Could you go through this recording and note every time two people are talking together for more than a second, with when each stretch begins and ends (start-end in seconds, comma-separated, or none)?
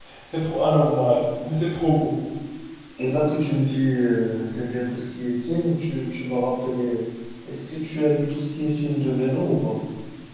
none